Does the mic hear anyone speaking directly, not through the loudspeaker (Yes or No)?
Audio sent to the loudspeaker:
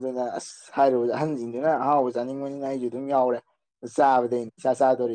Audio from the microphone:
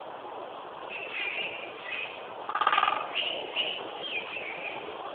No